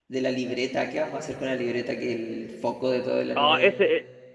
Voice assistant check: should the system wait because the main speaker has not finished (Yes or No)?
No